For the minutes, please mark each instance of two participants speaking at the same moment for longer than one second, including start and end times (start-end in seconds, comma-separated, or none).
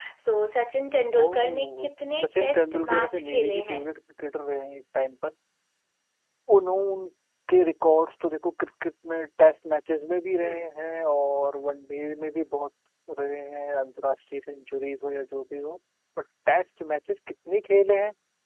1.1-3.8